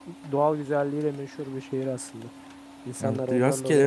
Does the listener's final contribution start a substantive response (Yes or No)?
Yes